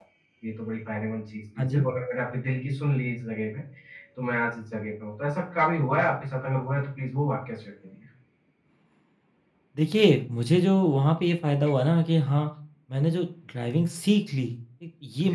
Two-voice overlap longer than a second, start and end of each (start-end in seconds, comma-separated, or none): none